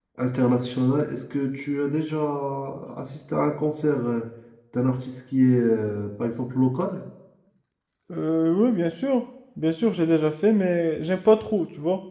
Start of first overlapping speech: none

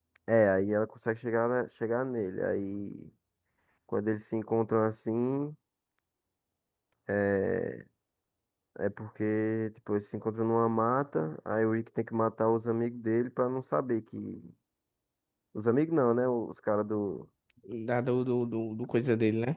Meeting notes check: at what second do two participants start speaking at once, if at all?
none

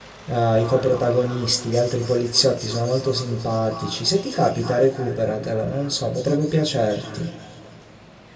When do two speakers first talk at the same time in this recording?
none

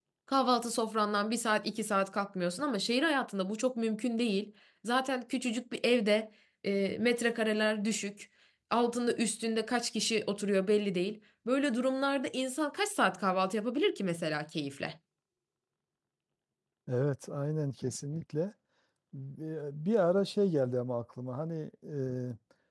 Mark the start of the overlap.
none

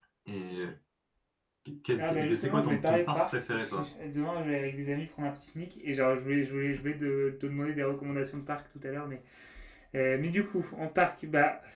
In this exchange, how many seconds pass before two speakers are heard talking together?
2.0 s

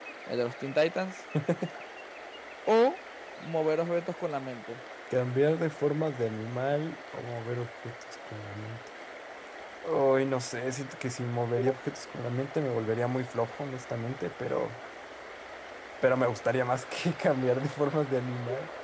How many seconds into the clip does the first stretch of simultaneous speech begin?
none

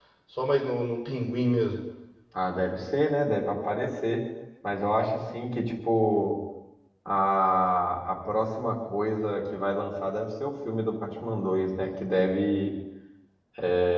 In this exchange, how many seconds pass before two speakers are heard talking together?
none

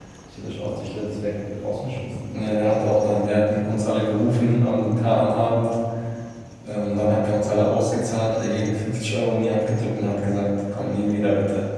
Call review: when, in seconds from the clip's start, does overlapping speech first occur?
none

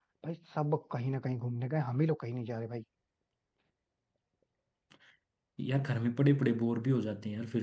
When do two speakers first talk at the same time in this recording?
none

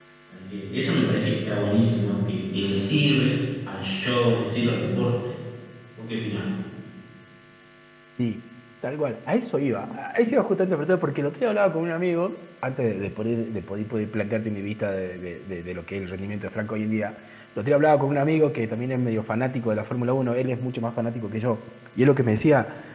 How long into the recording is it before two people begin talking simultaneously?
none

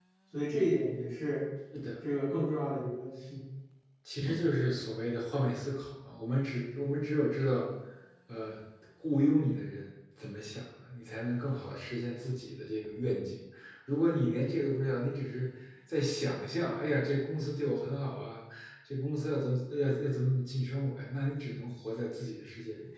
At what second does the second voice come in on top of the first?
none

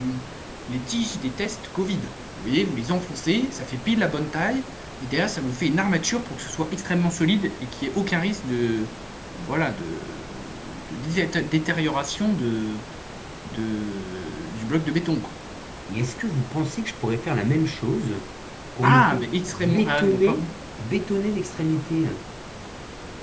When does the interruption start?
18.8 s

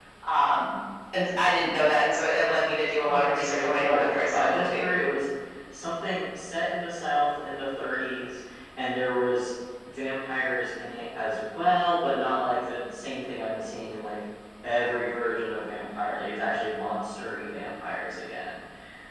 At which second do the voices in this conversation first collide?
3.0 s

